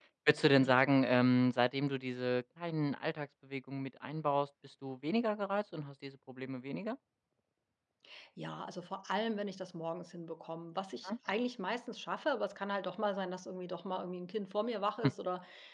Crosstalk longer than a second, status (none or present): none